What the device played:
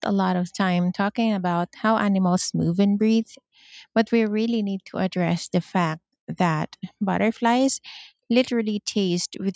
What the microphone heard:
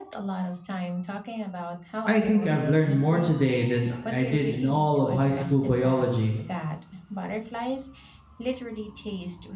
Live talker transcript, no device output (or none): I think I've learned more today than I did in all of high school biology.